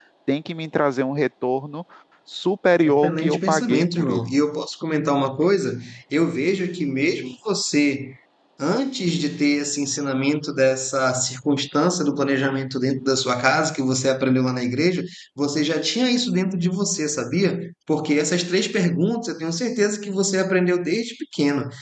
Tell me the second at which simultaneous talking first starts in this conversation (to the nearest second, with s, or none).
3 s